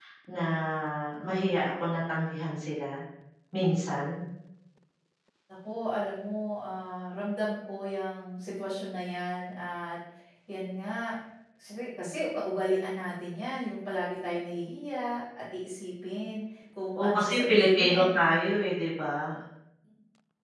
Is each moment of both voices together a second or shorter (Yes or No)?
No